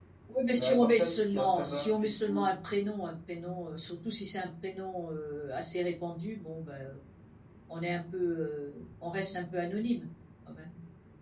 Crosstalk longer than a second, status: present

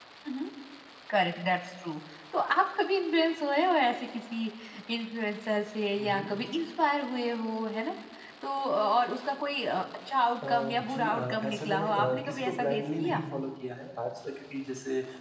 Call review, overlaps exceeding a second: present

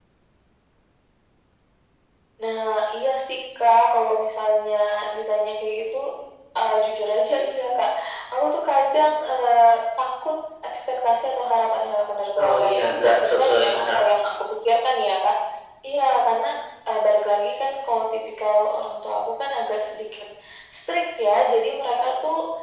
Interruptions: present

